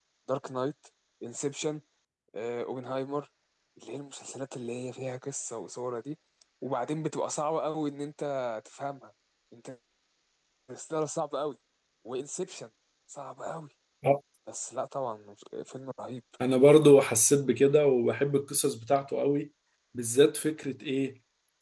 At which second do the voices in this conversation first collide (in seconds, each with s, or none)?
none